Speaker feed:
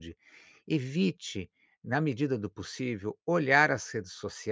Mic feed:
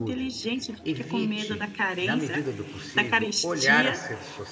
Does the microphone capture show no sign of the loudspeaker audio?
No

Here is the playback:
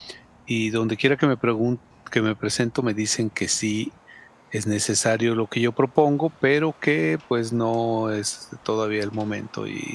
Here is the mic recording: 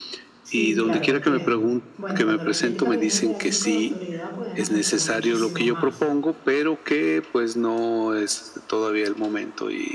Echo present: Yes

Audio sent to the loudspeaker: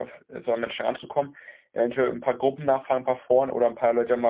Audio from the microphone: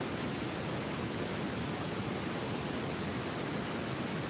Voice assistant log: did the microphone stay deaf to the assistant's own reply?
Yes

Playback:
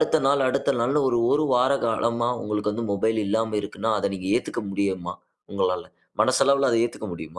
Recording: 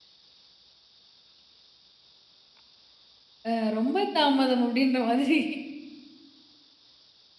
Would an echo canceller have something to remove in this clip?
No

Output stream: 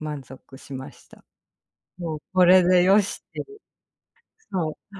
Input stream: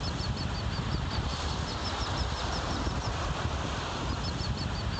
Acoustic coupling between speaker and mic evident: No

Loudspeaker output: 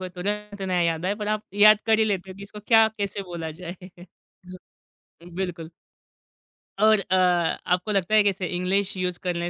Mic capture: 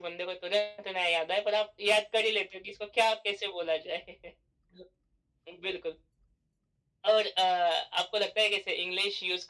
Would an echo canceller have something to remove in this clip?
Yes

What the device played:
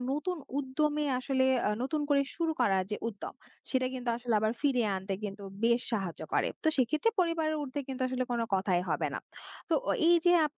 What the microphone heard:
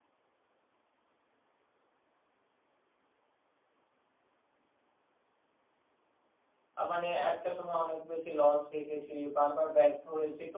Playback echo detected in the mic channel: No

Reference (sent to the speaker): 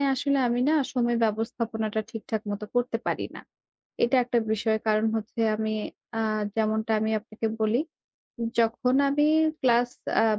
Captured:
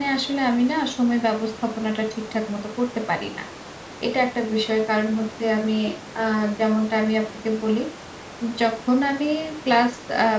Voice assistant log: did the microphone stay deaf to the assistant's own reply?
No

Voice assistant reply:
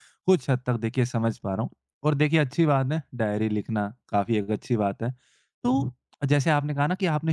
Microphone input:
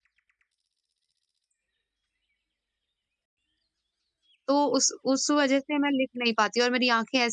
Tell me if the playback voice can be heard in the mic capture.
No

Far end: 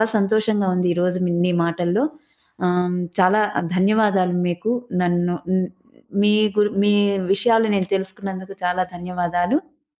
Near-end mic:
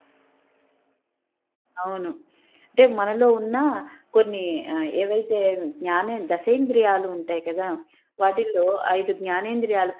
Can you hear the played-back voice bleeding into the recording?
No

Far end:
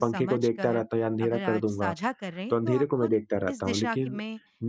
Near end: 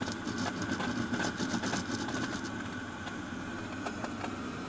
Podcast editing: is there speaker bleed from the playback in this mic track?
No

